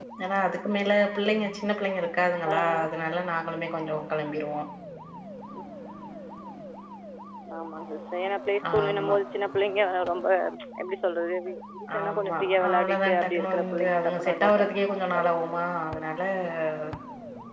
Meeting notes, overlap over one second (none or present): present